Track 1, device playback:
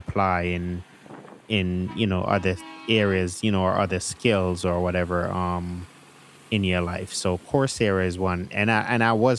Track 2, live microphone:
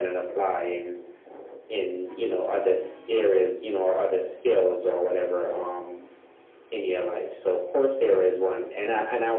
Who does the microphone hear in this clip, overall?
echo only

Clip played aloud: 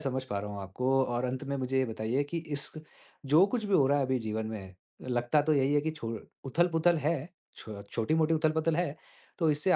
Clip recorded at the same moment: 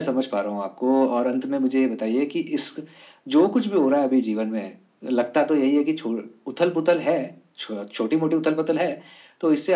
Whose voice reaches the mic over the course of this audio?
echo only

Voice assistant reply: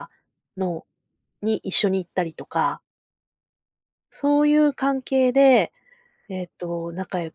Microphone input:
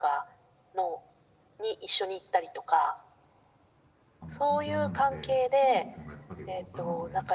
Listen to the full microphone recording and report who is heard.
both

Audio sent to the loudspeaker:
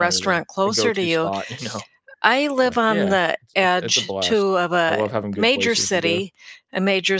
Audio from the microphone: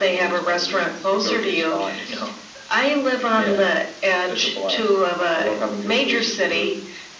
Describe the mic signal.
echo only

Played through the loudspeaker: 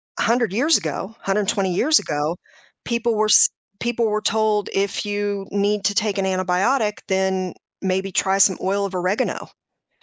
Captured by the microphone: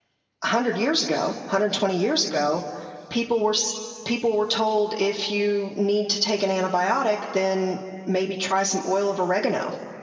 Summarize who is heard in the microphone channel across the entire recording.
echo only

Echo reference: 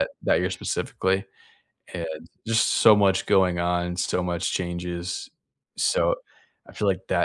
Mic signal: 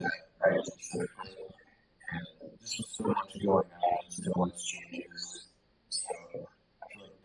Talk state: echo only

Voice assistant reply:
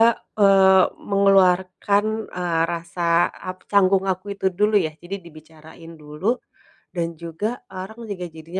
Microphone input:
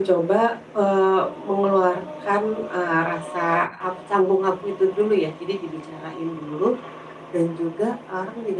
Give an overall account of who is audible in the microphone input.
echo only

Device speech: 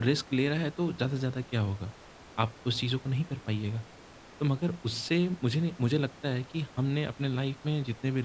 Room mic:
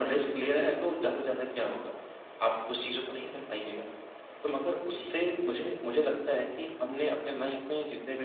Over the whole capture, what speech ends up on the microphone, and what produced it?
echo only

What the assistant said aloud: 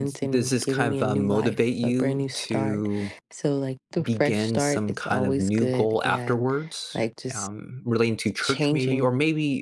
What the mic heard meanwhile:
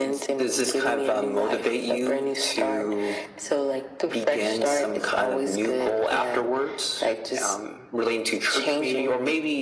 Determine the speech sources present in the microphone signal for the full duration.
echo only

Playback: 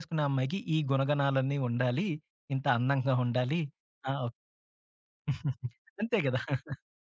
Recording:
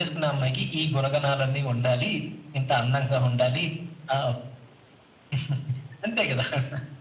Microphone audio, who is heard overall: echo only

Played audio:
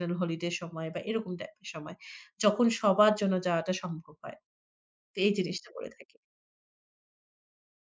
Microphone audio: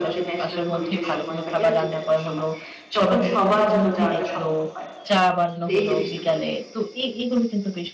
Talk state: both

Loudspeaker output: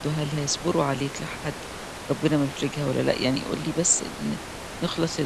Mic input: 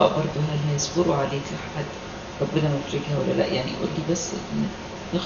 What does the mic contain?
echo only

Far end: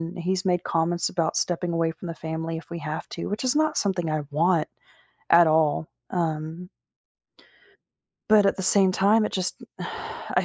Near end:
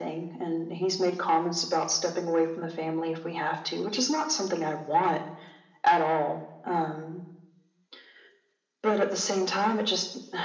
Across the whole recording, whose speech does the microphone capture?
echo only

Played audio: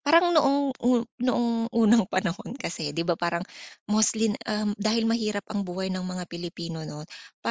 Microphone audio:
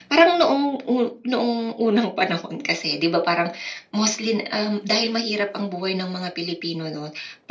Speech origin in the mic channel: echo only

